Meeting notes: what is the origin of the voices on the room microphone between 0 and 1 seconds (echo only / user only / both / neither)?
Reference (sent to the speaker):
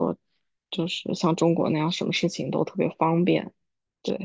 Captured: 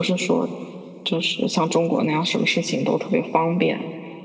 echo only